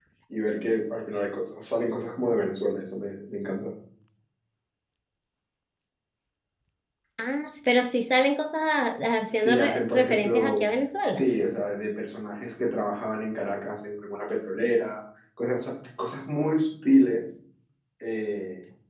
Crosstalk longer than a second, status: present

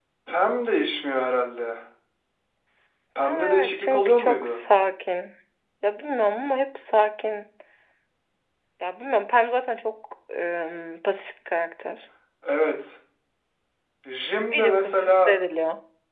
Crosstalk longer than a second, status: present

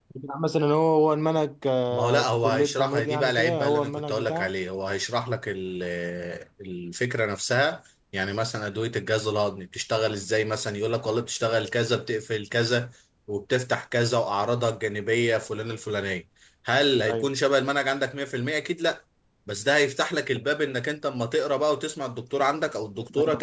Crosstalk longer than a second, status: present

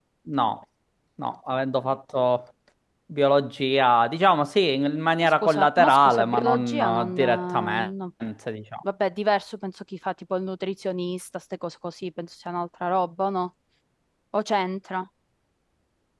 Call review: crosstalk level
present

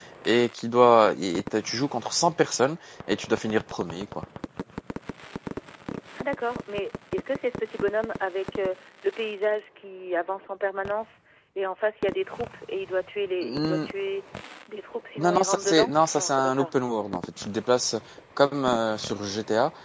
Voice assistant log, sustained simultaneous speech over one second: present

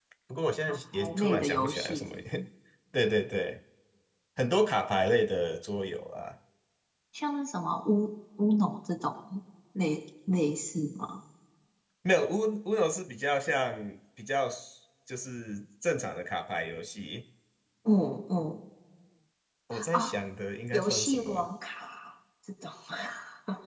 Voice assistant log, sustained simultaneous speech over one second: present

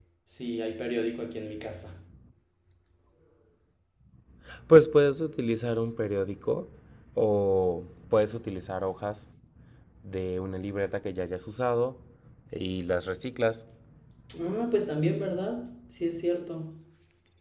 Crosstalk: none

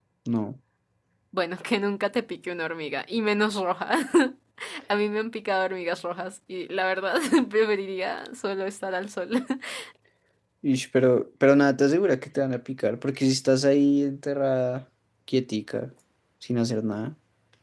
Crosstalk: none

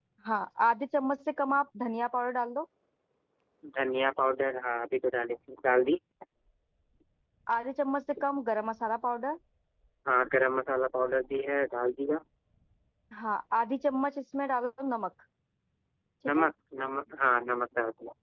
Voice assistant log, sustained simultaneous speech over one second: none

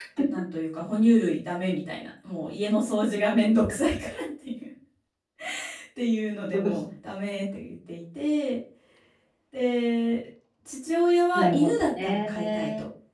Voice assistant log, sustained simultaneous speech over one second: present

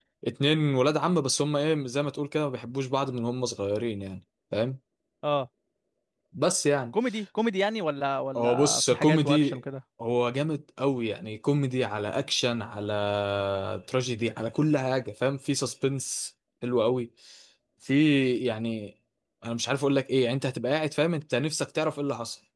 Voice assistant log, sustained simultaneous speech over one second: present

